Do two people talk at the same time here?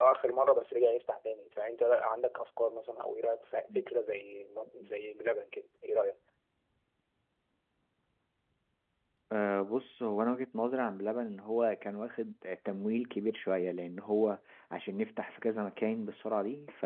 No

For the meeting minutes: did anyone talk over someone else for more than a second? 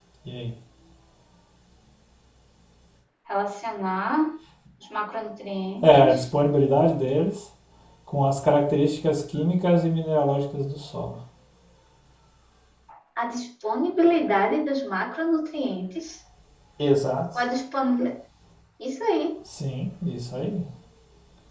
No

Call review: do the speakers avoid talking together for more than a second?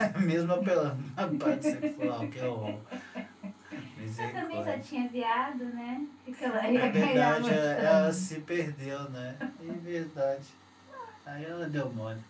No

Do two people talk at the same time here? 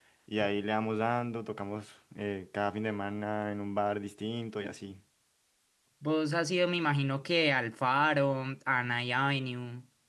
No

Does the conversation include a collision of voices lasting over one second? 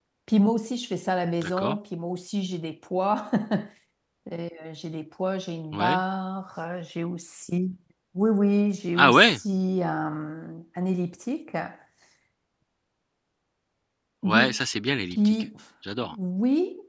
No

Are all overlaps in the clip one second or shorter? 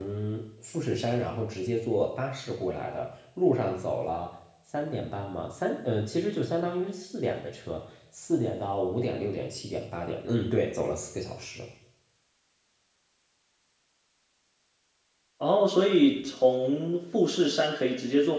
Yes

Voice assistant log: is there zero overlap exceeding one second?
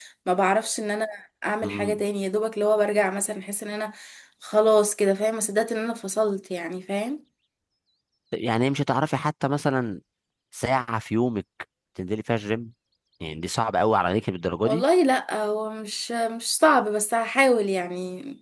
Yes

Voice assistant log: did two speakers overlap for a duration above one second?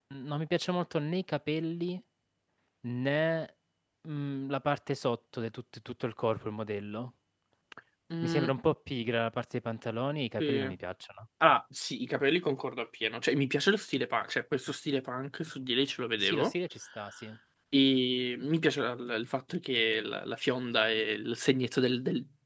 No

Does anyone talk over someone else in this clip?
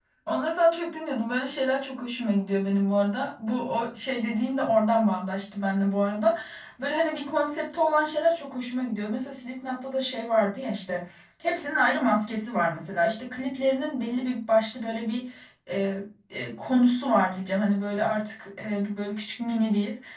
No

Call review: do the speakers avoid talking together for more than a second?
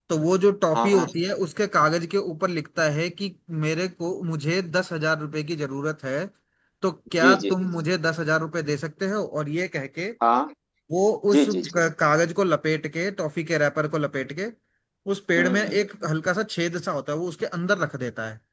Yes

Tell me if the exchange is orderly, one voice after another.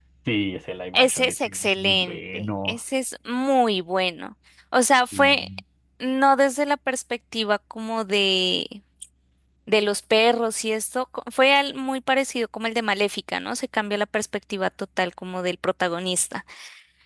No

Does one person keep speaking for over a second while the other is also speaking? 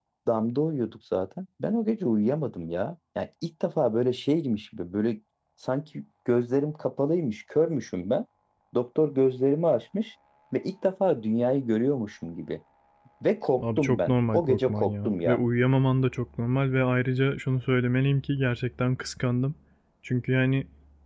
Yes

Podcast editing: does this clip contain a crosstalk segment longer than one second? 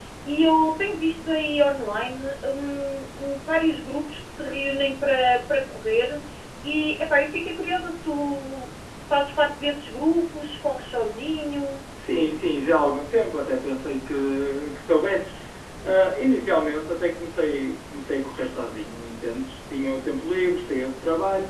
No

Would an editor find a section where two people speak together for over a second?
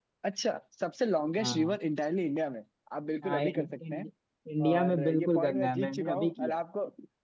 Yes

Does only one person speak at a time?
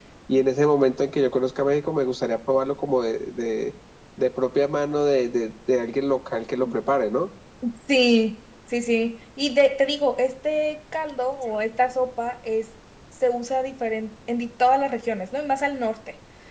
Yes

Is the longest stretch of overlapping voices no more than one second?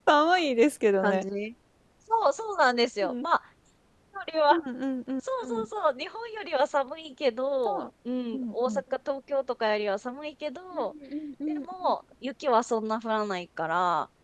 Yes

